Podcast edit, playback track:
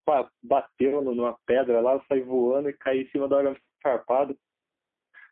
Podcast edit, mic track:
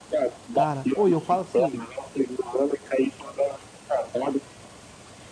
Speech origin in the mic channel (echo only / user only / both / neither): both